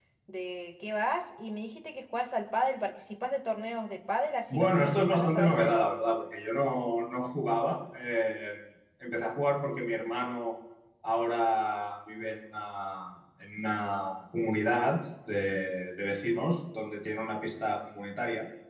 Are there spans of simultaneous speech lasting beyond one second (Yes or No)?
Yes